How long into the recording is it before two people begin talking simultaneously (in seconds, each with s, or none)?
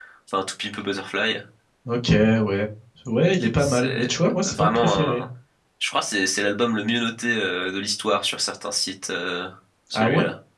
3.6 s